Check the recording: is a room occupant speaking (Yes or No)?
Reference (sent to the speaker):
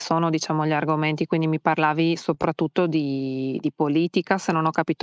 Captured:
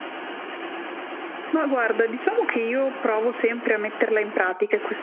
Yes